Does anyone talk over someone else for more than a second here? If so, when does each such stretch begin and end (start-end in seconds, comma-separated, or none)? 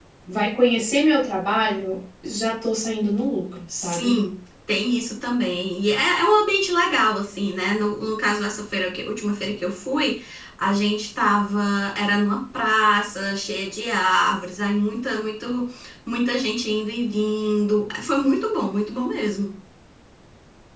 none